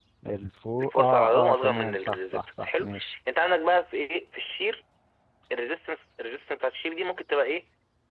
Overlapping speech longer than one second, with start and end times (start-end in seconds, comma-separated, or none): 0.8-2.9